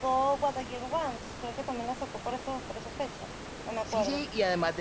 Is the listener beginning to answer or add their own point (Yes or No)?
Yes